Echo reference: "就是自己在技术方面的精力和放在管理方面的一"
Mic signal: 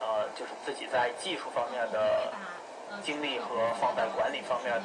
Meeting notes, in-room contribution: present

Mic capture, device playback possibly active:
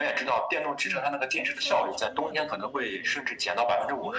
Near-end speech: present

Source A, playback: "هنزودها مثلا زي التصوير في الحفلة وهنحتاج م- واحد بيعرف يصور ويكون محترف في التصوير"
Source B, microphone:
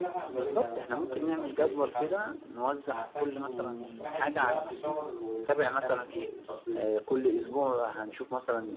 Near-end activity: present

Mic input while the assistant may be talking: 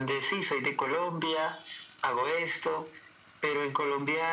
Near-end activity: none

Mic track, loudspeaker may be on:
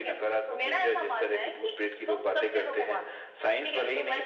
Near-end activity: none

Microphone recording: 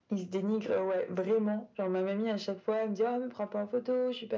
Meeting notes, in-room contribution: none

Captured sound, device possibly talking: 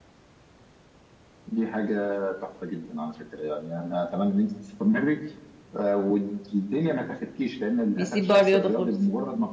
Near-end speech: present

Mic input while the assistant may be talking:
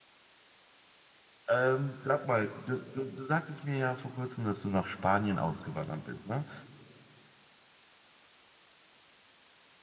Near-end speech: present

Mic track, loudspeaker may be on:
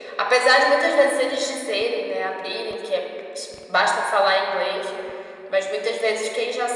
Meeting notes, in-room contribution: none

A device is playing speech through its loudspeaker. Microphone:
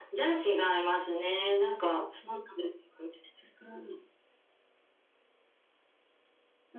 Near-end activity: none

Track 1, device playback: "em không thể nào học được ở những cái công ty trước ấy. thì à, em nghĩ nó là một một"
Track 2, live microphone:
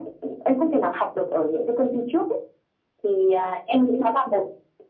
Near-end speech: none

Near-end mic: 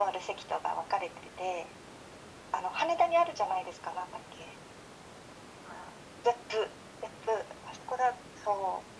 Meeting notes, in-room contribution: none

